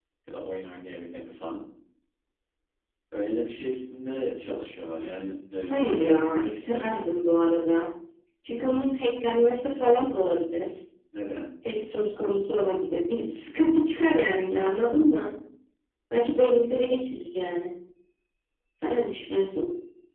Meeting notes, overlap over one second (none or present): present